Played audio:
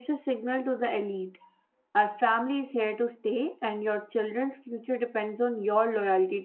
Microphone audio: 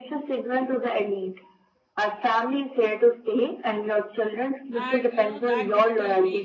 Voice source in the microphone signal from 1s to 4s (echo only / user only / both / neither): echo only